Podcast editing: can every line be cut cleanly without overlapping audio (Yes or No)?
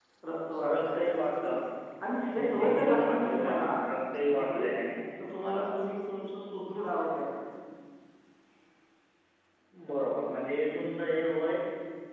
No